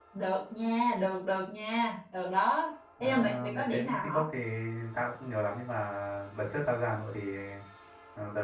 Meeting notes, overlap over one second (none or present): present